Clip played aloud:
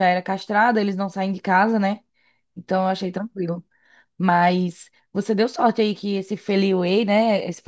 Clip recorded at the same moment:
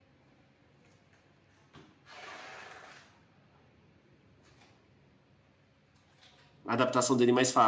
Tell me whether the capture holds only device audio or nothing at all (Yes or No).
No